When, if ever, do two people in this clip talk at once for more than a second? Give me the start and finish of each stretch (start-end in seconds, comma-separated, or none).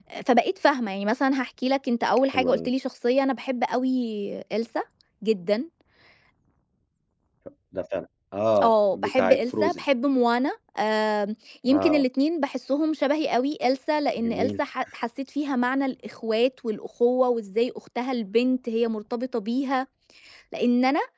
8.6-9.8